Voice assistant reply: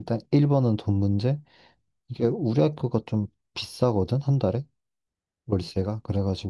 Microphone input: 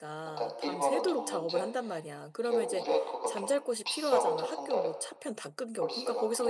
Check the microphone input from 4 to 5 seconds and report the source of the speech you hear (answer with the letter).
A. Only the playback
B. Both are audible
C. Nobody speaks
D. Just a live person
B